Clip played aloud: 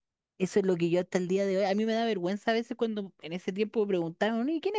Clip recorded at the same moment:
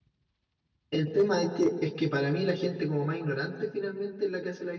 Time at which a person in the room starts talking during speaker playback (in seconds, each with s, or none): 0.9 s